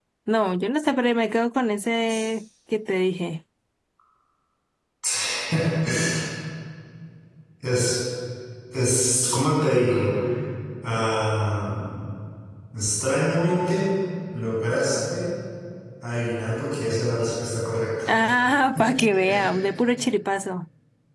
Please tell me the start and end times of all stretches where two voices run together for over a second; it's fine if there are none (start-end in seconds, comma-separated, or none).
none